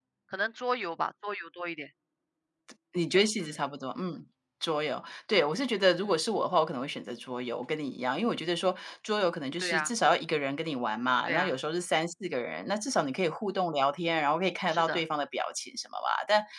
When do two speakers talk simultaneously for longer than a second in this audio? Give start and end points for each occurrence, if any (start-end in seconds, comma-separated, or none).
none